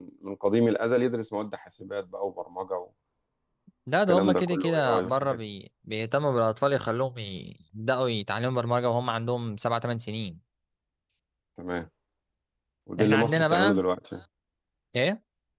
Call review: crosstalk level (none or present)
present